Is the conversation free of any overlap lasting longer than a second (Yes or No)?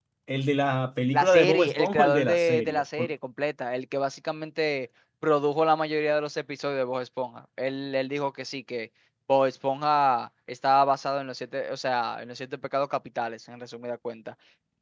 No